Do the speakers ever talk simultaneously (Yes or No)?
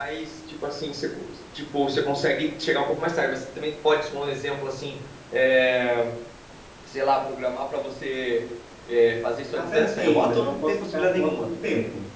Yes